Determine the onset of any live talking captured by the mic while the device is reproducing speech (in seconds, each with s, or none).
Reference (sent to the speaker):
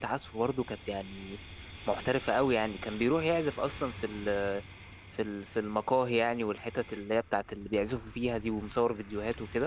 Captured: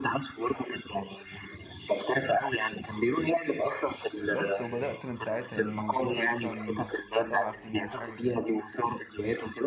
4.2 s